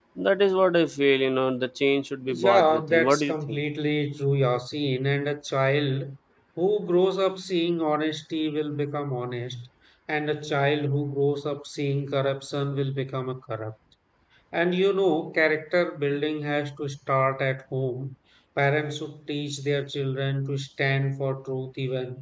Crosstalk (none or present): present